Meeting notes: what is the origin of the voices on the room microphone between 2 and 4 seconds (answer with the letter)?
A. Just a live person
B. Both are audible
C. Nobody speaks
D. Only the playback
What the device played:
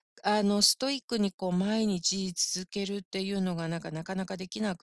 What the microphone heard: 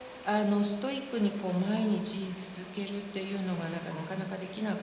D